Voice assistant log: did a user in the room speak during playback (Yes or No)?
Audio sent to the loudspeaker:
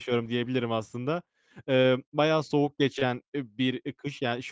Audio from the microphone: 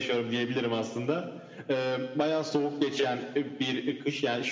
No